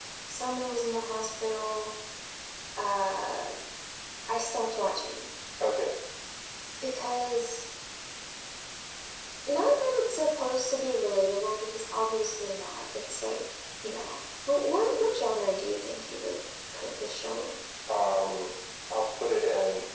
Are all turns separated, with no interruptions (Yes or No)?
Yes